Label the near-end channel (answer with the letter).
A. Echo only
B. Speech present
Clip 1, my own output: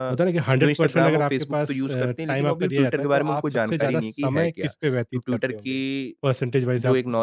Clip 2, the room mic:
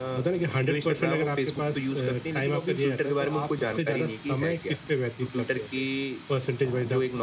A